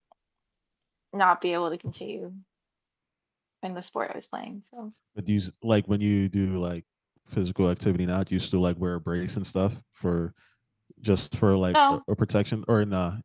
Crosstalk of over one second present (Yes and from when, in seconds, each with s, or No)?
No